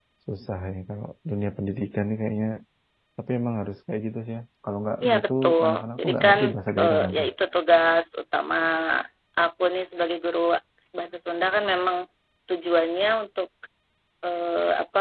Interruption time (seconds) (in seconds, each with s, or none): 5.0 s